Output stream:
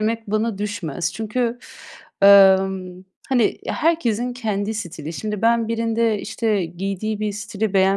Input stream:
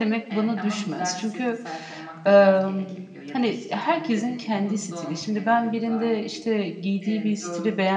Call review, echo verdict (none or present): present